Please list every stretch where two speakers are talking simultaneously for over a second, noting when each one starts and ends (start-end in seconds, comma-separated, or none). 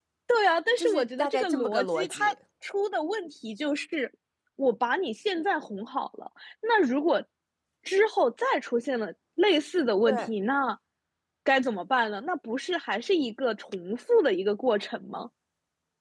0.8-2.3